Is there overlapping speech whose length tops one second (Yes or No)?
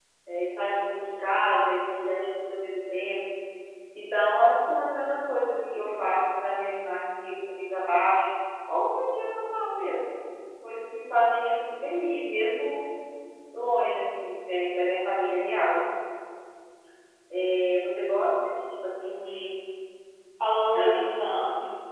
No